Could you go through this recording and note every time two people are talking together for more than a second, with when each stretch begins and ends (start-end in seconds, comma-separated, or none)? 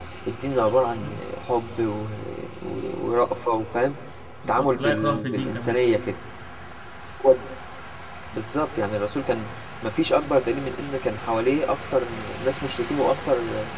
4.5-5.8